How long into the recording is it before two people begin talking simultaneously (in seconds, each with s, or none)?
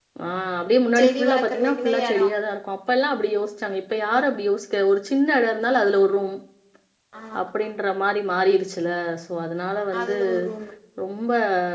1.0 s